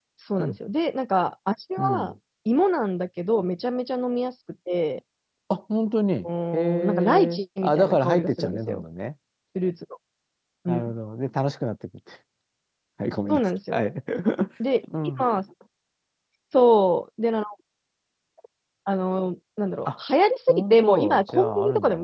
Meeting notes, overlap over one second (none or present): present